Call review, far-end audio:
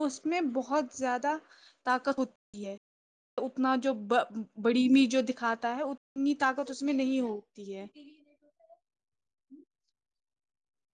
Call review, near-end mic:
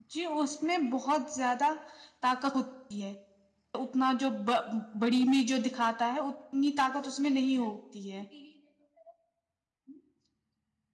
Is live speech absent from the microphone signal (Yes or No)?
Yes